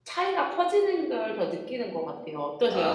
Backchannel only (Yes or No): No